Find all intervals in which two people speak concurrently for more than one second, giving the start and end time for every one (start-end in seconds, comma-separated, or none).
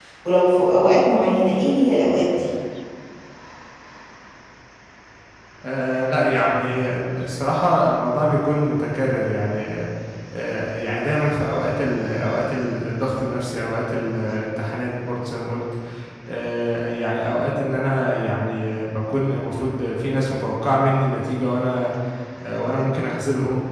none